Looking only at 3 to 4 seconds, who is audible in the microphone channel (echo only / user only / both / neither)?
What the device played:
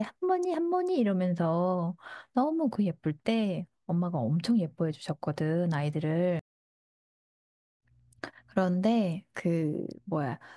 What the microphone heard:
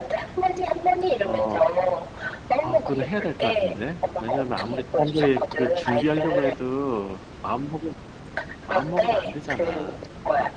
both